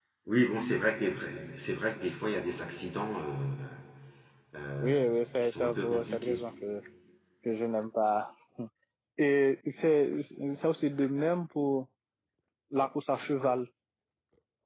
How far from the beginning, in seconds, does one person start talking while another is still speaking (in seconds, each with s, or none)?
4.8 s